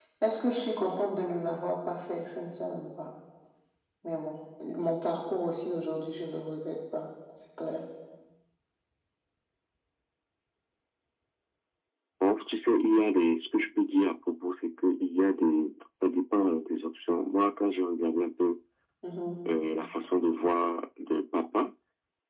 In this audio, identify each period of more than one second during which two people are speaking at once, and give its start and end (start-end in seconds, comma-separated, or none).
none